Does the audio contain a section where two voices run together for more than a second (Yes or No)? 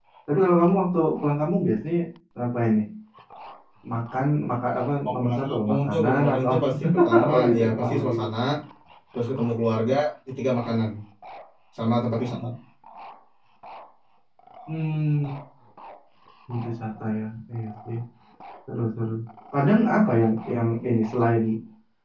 Yes